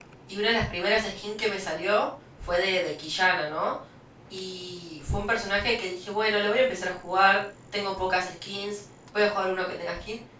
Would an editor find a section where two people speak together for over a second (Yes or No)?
No